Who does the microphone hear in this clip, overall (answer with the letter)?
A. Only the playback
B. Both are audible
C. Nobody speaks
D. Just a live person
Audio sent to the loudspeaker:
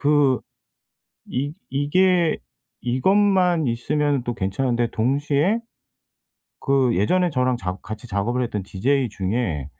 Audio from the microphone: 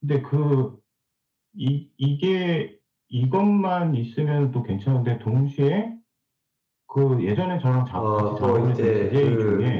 B